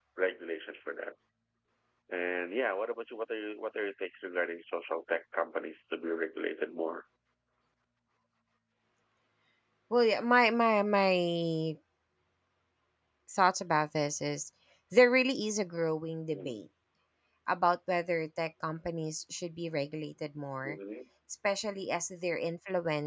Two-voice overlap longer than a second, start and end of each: none

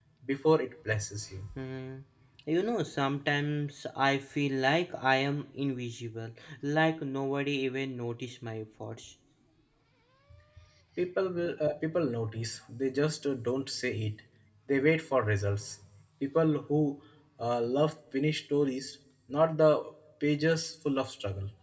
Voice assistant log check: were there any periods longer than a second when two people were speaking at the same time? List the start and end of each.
none

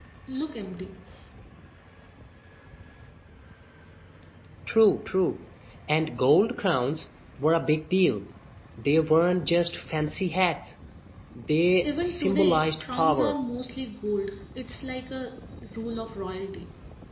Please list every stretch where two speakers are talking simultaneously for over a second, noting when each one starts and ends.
11.8-13.4

